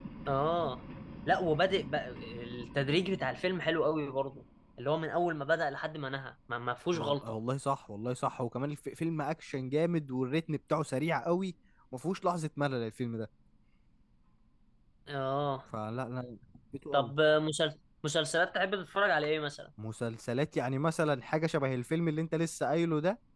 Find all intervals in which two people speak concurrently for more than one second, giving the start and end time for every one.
none

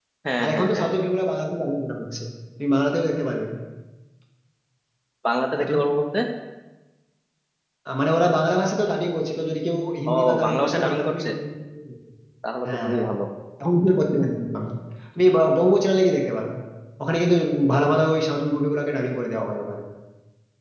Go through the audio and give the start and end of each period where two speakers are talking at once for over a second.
10.1-11.3

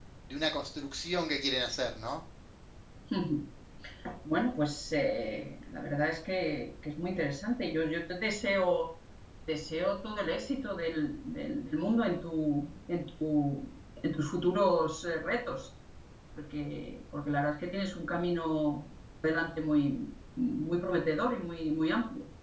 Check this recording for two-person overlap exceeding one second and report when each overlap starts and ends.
none

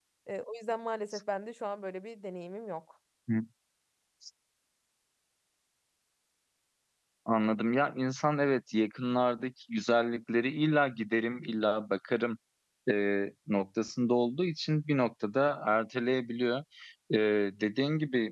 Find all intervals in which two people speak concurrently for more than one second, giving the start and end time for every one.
none

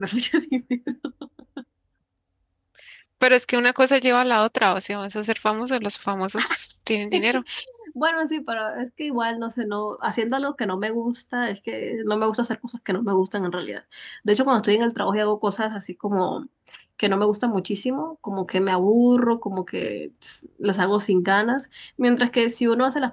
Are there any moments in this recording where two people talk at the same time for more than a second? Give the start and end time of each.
none

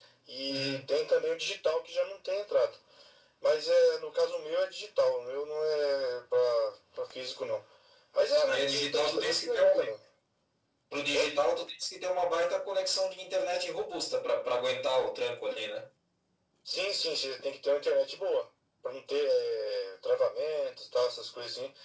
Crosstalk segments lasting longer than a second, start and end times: 8.4-9.9

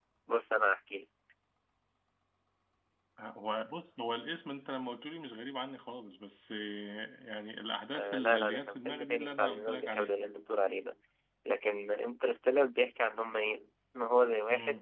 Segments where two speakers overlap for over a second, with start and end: 8.0-10.2

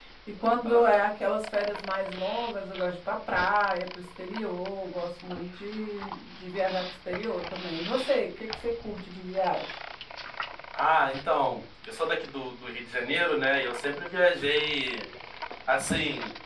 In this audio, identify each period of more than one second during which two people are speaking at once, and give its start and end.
none

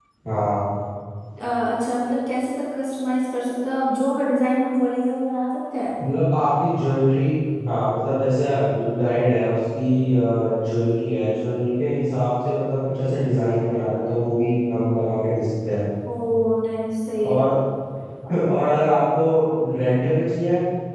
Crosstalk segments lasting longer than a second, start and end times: none

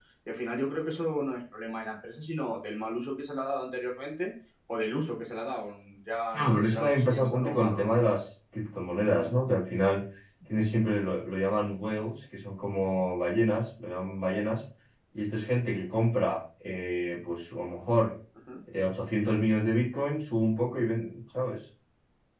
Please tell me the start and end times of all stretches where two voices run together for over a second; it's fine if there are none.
6.3-7.9

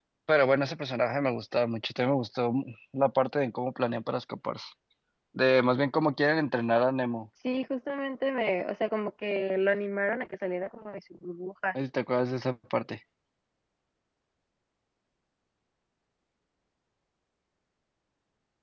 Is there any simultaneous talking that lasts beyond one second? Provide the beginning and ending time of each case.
none

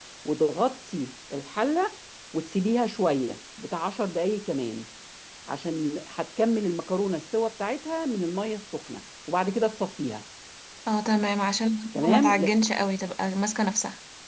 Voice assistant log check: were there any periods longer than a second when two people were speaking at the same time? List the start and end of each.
none

